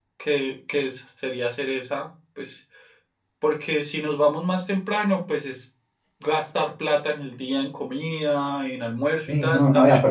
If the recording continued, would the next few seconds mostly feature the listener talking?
Yes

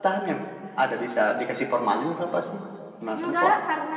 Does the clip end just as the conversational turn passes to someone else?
Yes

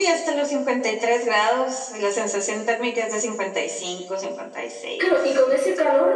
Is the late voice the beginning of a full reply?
Yes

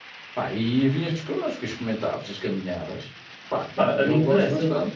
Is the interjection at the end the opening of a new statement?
Yes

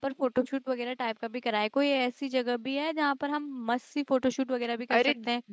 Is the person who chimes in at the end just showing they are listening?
No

